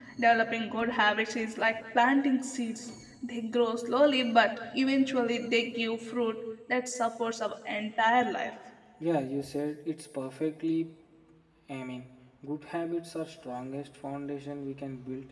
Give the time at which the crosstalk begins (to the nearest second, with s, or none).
none